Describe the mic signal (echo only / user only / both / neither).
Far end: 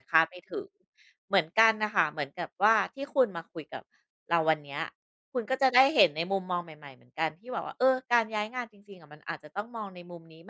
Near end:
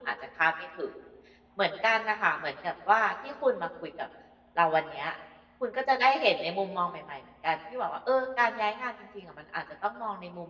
echo only